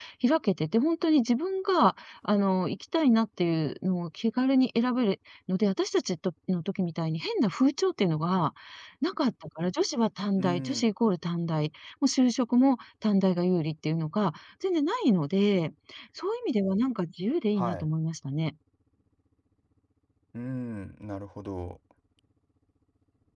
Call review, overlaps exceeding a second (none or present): none